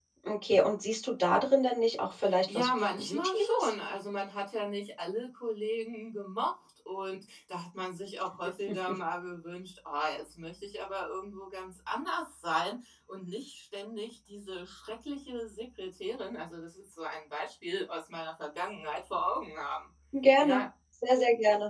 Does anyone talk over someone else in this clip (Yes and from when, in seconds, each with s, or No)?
Yes, from 2.5 s